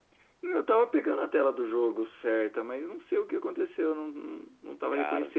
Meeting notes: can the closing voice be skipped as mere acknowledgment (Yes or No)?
Yes